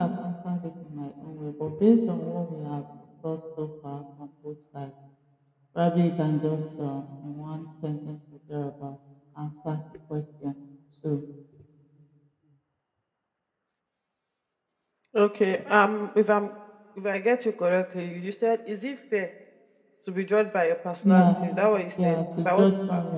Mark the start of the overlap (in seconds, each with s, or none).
21.0 s